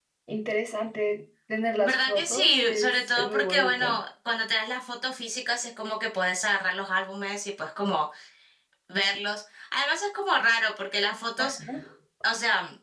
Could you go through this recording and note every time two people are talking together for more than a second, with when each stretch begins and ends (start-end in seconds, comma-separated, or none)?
1.8-4.0